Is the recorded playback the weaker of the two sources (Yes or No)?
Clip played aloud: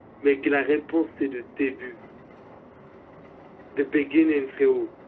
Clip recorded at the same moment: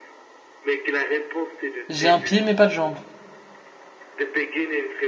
Yes